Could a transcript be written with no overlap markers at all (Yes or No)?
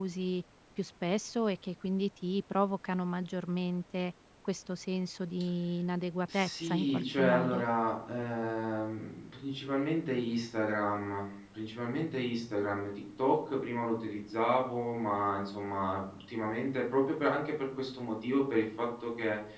No